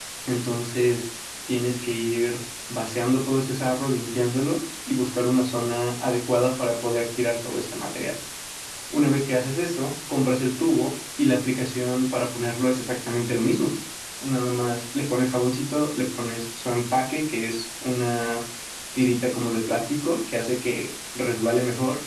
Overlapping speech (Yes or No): No